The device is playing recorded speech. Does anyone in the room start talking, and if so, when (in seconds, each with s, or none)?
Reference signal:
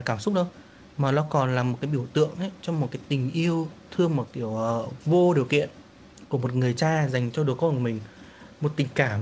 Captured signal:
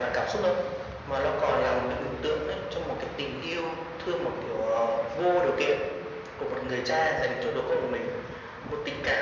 none